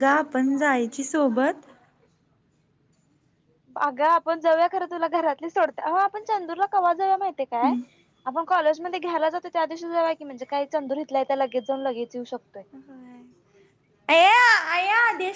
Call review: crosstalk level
none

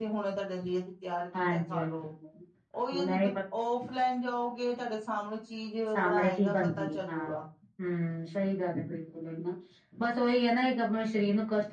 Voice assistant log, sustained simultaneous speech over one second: present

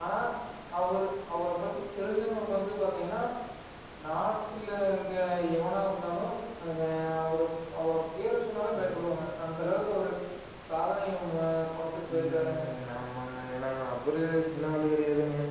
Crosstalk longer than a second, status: none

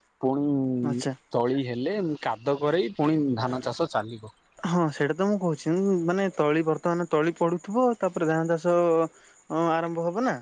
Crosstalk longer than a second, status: none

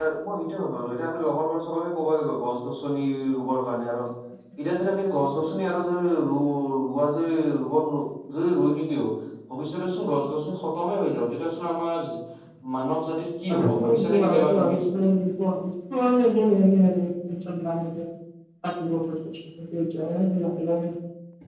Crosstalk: present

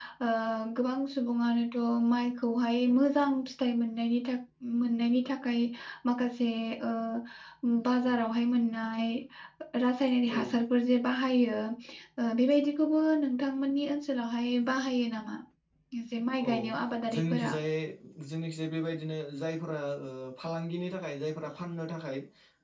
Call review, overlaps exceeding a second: none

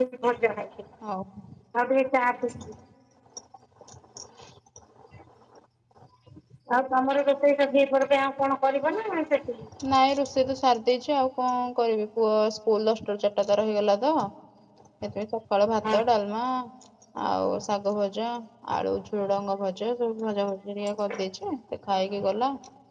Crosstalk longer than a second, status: none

